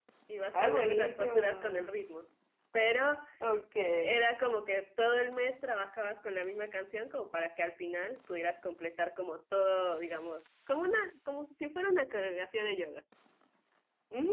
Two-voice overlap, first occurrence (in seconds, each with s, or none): 0.5 s